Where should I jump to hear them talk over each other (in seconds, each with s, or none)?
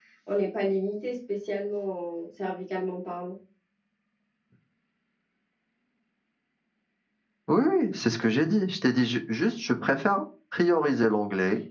none